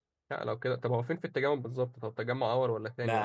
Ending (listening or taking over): taking over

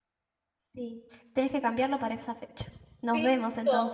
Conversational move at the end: taking over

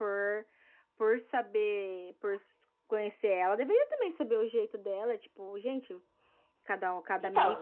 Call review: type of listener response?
taking over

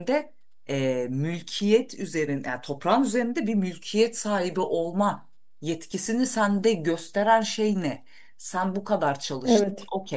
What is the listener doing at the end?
listening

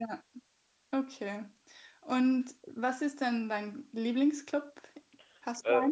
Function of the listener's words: taking over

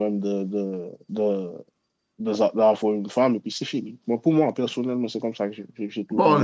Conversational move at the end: taking over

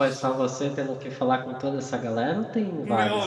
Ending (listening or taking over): taking over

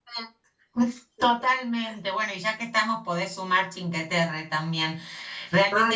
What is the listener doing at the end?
listening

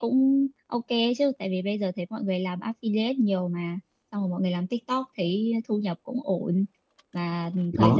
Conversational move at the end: listening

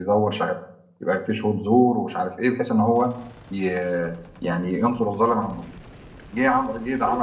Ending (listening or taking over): listening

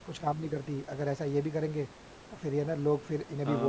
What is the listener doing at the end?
taking over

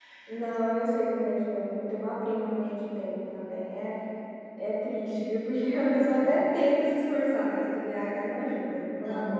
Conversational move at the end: taking over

